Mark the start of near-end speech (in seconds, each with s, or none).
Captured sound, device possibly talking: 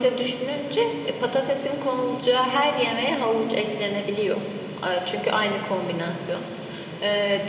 none